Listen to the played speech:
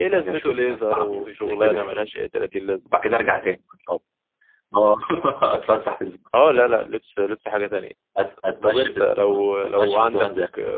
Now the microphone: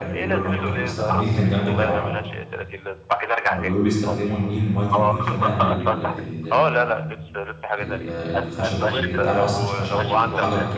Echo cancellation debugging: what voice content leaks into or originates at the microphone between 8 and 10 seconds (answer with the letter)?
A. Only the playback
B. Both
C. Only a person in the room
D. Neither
B